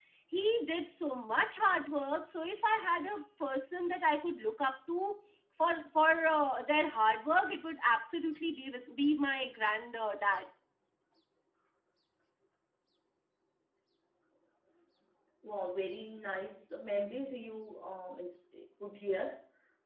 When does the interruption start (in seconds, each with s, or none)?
none